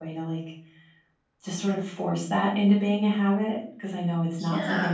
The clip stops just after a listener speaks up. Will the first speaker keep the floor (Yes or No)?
Yes